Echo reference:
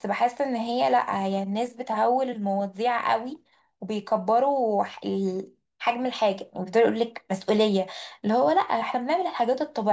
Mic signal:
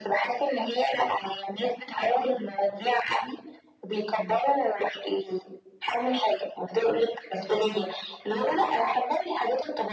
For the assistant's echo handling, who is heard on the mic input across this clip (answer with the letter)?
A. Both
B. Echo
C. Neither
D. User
B